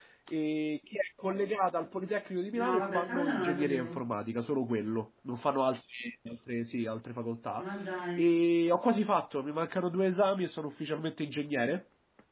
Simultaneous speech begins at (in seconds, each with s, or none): 2.5 s